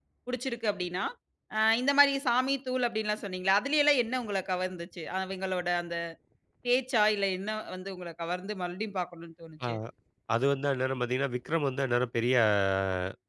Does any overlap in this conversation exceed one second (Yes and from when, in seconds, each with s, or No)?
No